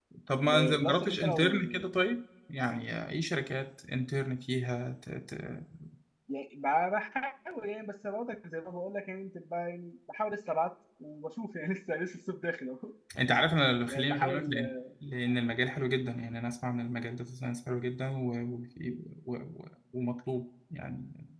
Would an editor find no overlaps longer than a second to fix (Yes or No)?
No